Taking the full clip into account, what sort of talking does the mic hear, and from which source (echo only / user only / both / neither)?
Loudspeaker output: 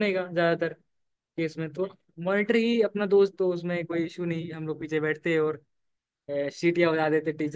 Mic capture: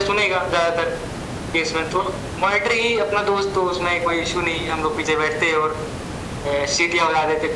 echo only